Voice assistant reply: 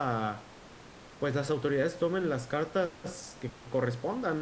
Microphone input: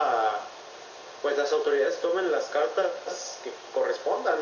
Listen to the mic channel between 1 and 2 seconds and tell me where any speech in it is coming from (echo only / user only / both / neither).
echo only